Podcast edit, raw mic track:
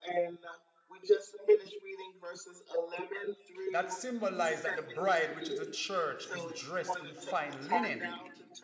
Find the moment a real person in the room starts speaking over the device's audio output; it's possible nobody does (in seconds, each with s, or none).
3.7 s